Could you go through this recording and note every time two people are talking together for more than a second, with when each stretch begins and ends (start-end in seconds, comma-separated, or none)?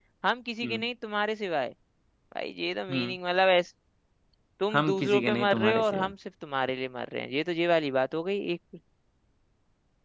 4.7-6.1